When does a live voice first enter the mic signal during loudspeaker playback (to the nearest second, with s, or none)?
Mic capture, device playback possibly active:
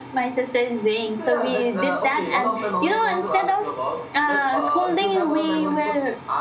1 s